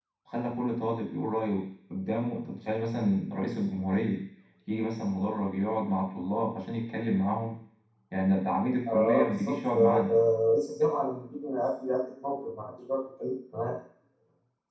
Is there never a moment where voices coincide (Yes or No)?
No